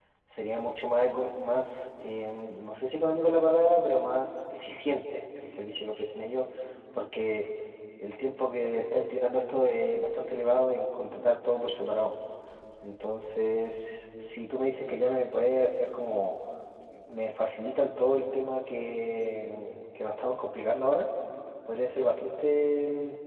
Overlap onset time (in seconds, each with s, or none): none